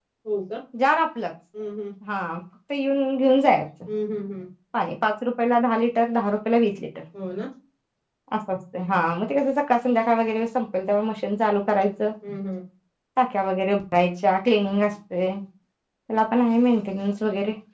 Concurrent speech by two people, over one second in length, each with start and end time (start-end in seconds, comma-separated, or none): none